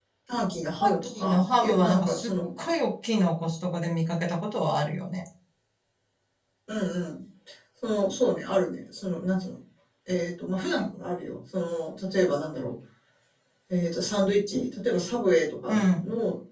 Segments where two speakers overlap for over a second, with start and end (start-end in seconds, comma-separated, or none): 0.8-2.3